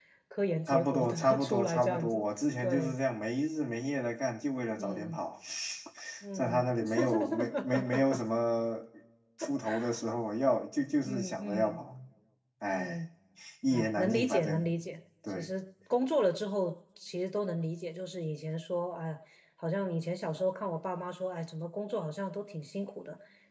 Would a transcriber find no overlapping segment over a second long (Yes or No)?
No